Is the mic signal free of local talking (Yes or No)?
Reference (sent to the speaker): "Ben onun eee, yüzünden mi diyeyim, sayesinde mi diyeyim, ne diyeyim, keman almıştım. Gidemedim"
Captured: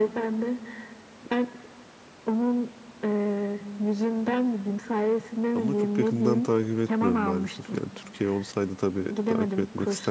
No